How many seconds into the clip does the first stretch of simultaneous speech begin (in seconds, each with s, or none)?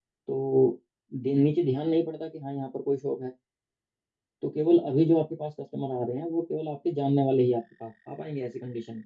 none